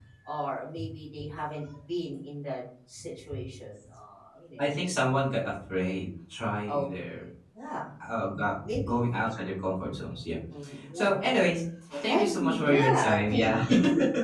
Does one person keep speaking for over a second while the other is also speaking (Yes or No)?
Yes